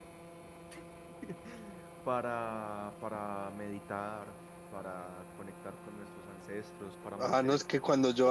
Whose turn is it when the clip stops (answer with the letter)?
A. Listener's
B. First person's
A